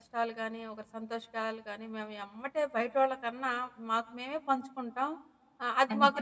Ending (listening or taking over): listening